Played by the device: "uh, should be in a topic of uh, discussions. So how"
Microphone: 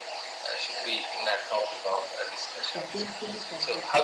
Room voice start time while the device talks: 3 s

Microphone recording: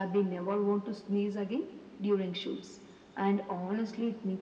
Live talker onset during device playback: none

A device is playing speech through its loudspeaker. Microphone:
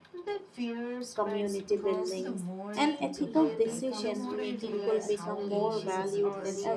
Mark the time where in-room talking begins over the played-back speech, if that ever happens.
1 s

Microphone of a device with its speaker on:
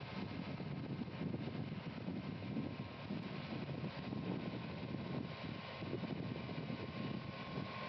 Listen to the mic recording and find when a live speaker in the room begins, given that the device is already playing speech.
none

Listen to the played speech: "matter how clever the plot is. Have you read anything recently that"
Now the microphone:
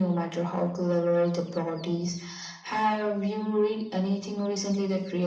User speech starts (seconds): none

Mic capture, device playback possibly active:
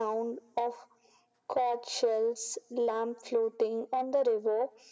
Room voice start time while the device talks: none

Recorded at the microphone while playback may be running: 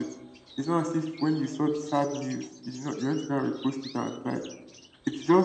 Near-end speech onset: none

